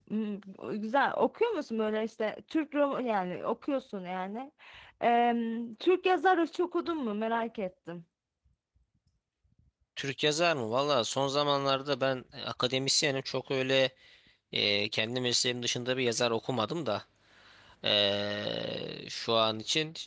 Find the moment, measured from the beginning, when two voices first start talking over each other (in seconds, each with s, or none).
none